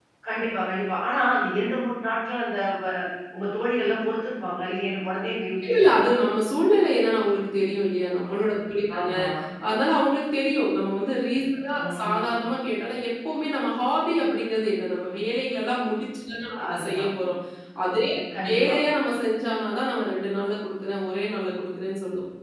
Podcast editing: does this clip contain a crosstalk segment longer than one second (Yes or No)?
No